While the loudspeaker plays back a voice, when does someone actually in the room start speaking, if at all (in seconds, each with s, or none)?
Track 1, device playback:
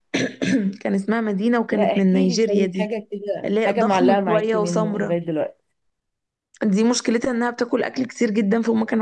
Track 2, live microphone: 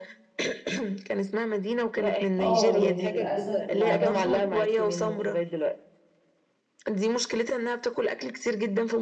2.4 s